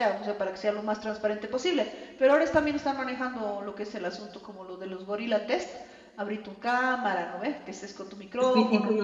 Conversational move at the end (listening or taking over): taking over